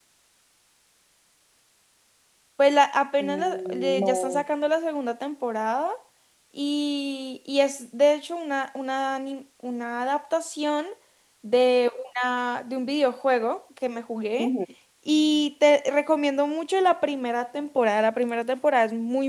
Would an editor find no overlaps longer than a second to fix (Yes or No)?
No